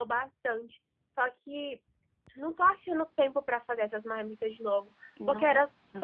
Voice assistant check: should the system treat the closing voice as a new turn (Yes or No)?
No